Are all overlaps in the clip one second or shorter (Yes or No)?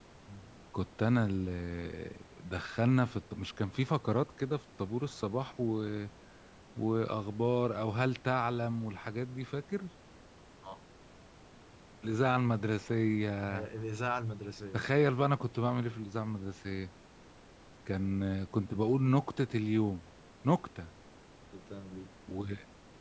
Yes